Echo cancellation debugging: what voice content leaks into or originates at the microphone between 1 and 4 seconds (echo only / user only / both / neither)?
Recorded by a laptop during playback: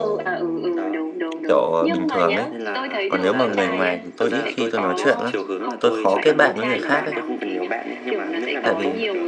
both